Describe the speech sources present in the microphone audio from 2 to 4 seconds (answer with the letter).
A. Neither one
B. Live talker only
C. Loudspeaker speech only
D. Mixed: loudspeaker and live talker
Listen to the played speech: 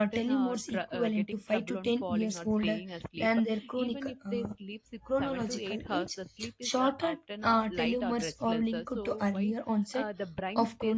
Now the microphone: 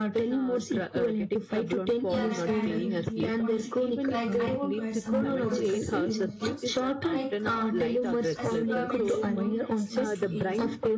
D